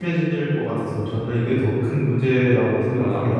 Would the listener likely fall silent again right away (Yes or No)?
No